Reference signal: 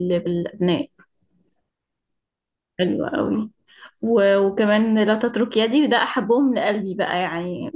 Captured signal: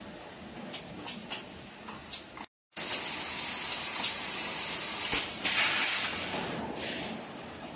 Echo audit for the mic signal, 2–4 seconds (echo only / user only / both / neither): neither